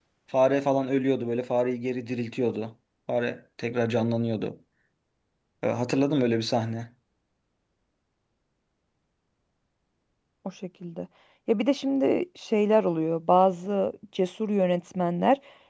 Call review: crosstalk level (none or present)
none